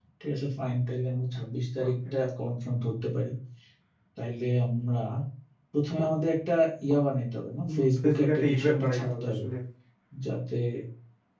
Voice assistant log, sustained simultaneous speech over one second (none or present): present